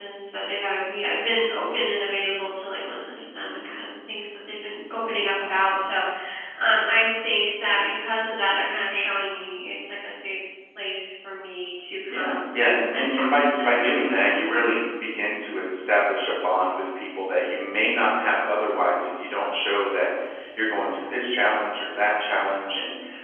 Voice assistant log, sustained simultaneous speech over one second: present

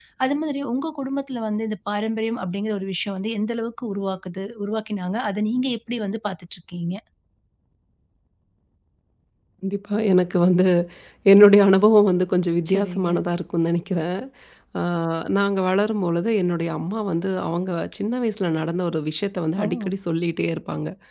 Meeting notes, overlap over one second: none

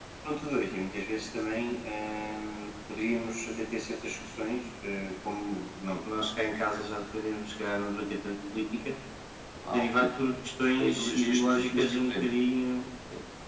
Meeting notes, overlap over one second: present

